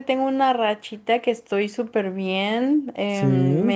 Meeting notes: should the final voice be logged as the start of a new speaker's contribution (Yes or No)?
No